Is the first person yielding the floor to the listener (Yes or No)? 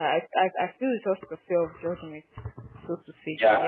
Yes